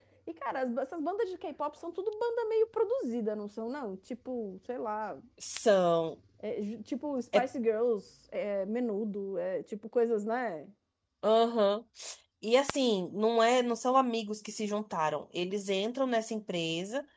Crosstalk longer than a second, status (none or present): none